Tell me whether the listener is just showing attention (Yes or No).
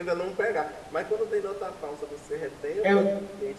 Yes